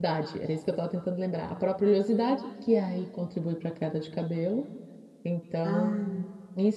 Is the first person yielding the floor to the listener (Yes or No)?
No